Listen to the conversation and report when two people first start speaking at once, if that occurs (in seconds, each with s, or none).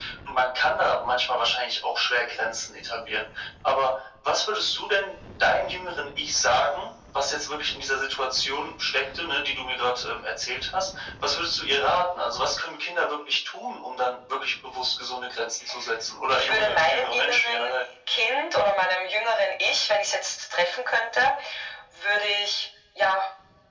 16.3 s